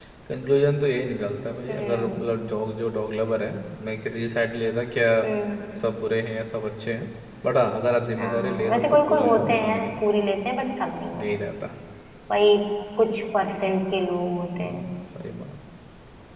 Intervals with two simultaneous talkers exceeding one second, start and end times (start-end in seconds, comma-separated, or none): 8.2-10.0